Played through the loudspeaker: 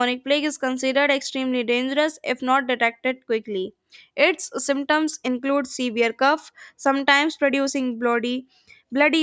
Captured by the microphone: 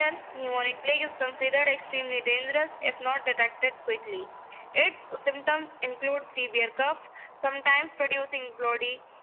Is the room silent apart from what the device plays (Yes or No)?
Yes